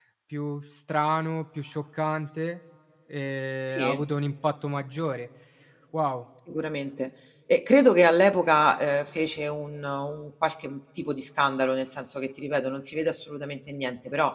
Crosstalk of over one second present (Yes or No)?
No